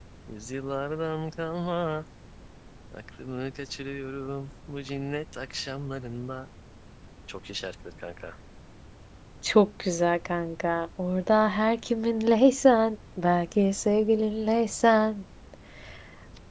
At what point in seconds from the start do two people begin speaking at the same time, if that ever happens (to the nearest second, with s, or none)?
none